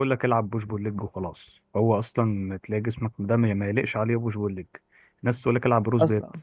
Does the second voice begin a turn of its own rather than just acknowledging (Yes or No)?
No